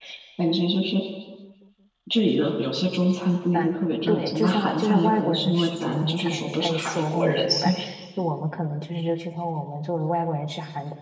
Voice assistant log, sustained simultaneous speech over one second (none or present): present